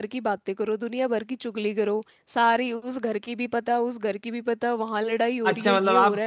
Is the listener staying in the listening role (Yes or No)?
No